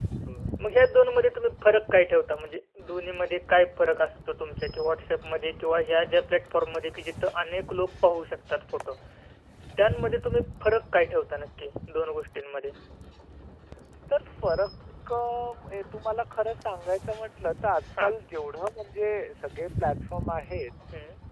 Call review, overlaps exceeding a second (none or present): none